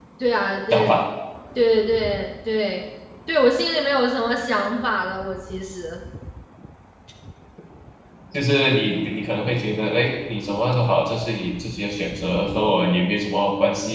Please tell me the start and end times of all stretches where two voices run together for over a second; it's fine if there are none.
none

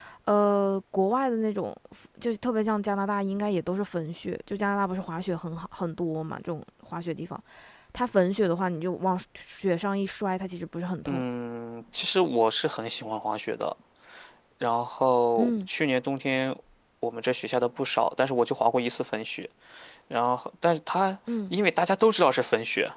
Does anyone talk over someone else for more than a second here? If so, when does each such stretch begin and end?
none

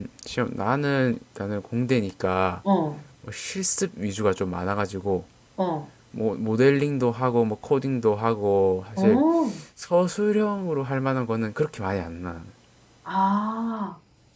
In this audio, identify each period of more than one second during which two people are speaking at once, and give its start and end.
none

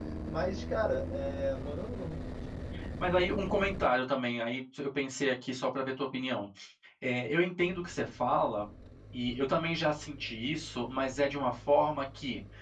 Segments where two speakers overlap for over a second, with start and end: none

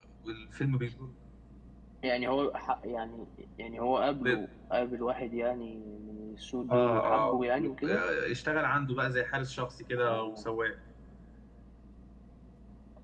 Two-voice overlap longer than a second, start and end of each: 6.7-8.0

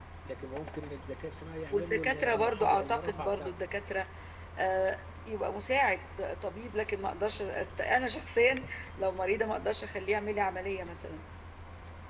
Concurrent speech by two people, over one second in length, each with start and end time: 1.7-3.5

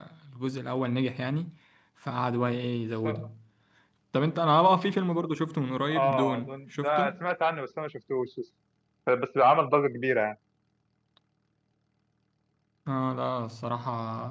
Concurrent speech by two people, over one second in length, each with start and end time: 5.9-7.1

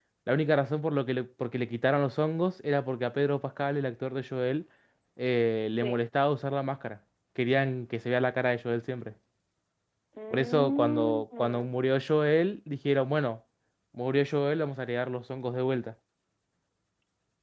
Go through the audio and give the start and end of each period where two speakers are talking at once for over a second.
10.3-11.7

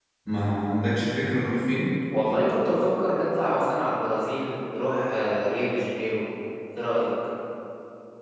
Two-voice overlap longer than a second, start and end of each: none

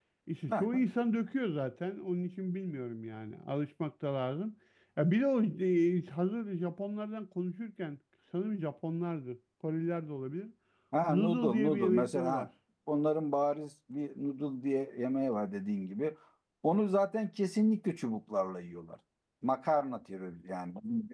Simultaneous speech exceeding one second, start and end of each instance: 11.1-12.5

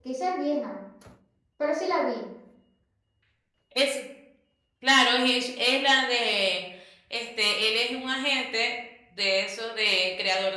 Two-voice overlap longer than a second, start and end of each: none

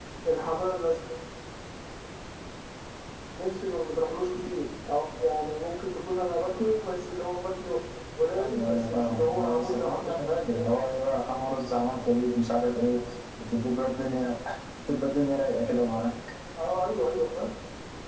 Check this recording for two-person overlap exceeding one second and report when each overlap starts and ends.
8.4-10.7

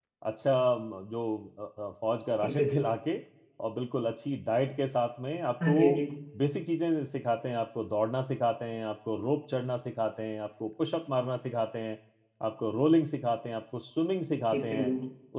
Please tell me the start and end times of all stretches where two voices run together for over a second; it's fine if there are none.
none

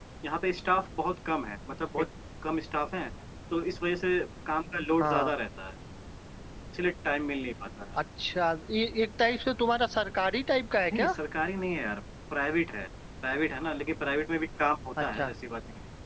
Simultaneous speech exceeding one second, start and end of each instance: none

